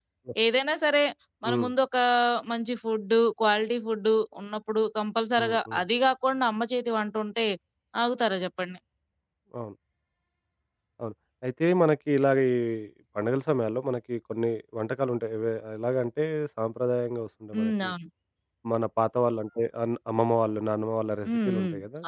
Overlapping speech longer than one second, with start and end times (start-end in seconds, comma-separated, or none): none